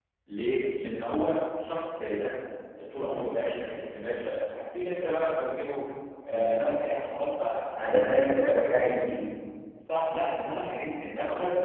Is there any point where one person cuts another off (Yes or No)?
Yes